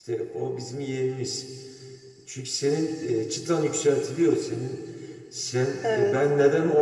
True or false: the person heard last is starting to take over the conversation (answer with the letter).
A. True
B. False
B